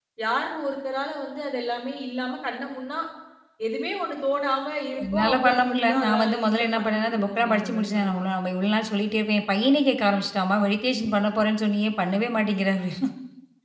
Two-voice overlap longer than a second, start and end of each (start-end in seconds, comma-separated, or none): 5.1-8.2